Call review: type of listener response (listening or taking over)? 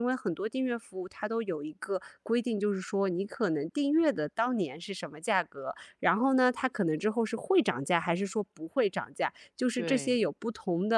listening